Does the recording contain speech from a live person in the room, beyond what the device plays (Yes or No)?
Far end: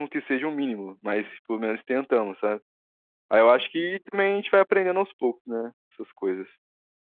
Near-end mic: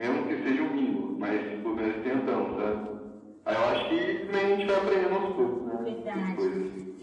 Yes